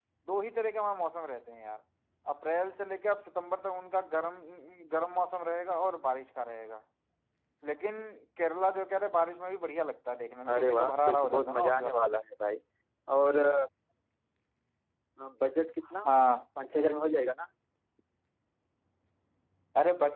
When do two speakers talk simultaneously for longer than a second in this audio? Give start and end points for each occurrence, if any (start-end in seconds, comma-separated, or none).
10.5-12.1